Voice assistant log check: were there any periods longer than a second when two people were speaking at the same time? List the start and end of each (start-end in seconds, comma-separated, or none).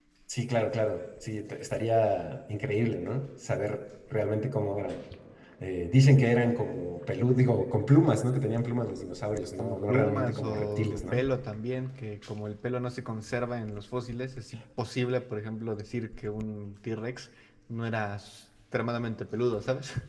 9.6-11.3